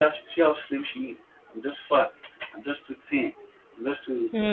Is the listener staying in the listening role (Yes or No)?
Yes